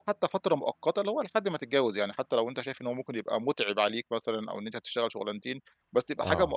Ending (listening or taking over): listening